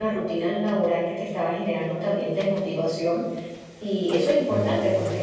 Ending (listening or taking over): listening